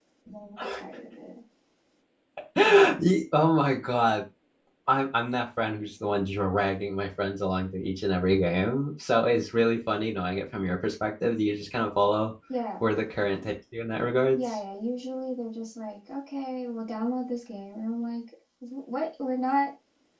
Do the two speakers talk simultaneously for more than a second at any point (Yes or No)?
No